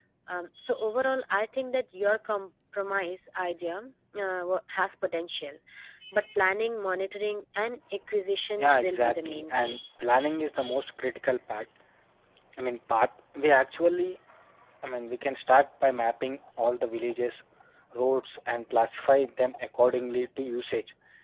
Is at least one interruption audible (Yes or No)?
Yes